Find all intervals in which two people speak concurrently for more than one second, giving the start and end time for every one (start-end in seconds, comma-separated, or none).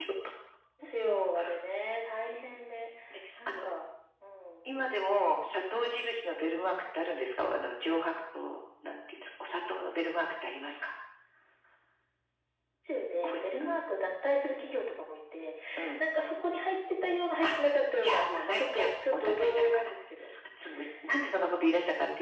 18.0-19.9